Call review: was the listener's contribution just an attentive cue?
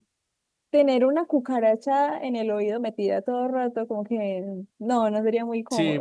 No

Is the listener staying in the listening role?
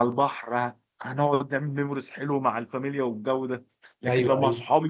Yes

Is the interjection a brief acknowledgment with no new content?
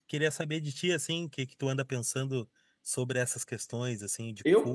No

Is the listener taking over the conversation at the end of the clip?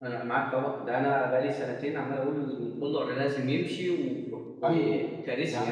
Yes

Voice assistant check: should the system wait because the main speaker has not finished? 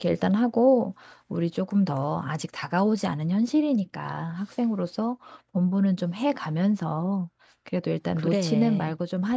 Yes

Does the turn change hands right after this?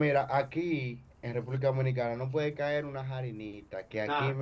No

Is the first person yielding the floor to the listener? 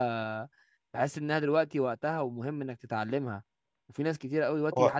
No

